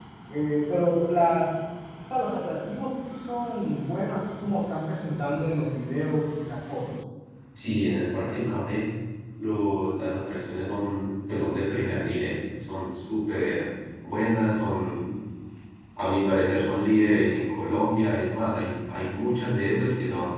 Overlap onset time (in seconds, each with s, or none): none